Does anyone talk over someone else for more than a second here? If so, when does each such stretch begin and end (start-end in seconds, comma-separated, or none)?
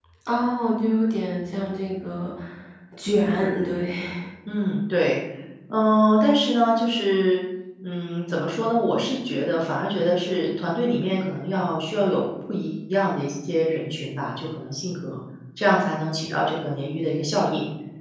none